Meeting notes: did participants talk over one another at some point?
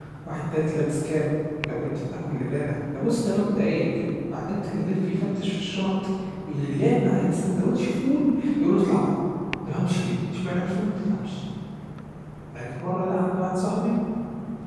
No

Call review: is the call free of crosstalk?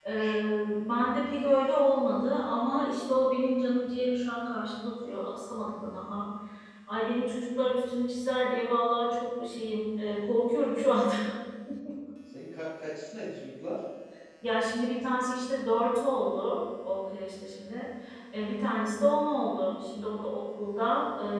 Yes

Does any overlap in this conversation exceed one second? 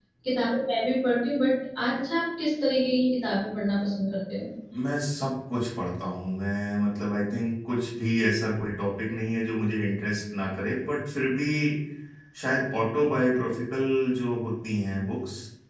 No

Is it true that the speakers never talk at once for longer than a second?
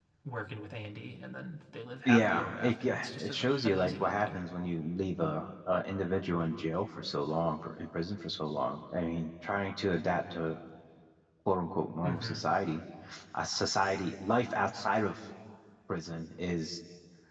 No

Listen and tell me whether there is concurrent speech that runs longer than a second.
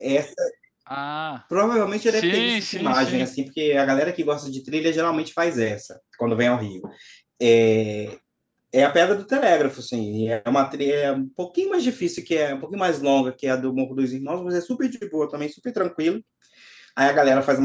Yes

